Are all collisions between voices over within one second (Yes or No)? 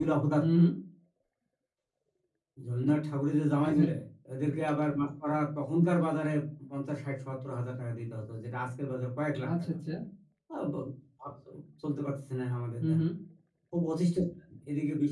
Yes